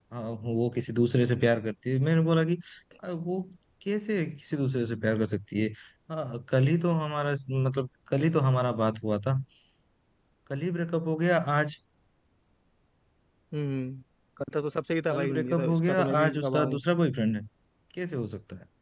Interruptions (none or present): present